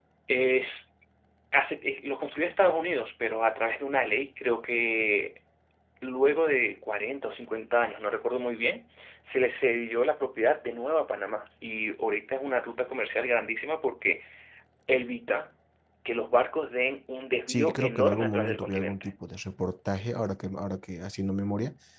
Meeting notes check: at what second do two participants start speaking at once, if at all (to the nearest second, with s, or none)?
17 s